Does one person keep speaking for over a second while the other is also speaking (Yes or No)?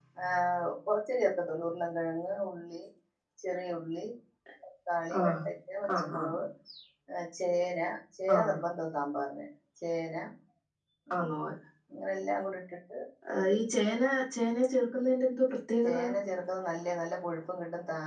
No